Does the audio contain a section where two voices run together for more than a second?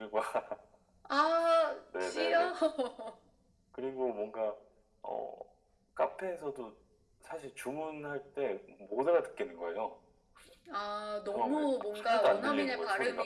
Yes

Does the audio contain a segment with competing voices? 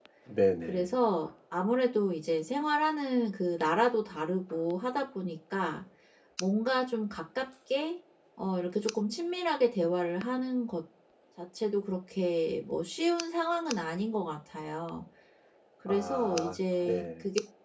Yes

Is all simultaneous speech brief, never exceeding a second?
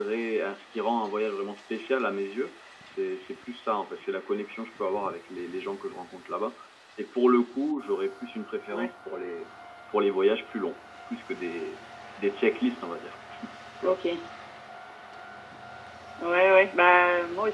Yes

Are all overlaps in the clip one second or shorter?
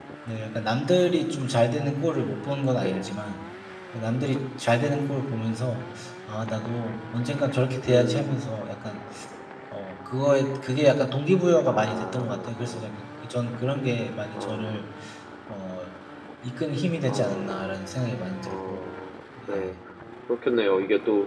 No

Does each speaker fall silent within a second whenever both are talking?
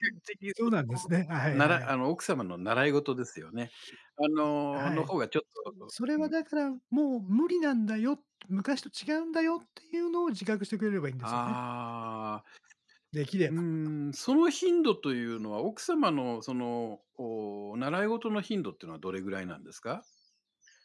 Yes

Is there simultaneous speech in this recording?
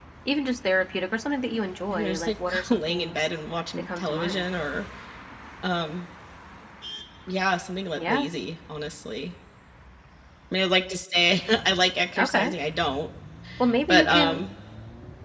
Yes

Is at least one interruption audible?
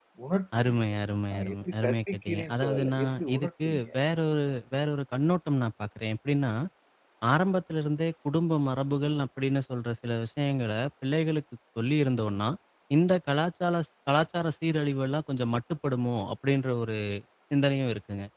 Yes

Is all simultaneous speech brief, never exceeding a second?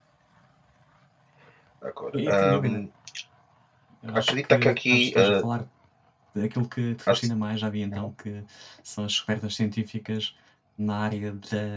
No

